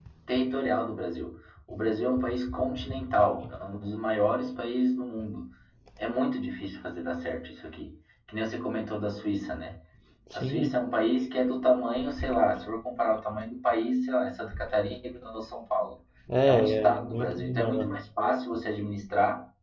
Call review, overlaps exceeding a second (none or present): present